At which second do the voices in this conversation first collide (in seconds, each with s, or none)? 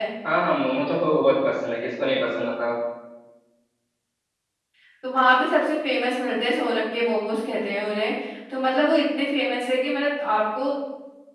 none